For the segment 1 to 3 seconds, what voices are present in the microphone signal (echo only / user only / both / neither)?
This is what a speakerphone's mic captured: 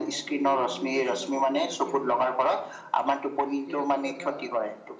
both